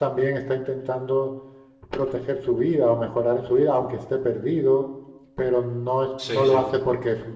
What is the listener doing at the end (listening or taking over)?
listening